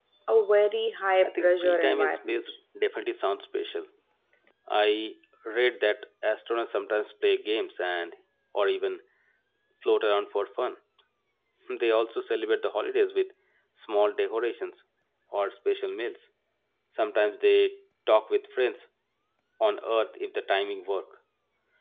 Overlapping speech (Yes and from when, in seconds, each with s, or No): Yes, from 1.2 s